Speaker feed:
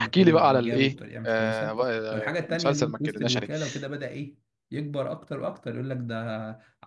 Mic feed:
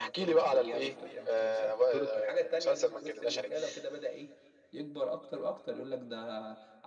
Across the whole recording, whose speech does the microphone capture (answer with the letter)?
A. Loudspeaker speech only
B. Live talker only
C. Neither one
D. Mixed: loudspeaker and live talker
D